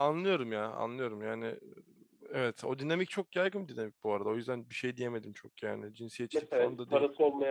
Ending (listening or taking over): taking over